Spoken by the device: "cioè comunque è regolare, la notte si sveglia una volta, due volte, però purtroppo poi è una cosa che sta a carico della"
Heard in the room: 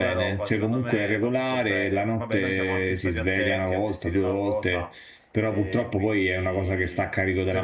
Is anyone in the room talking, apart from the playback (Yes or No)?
Yes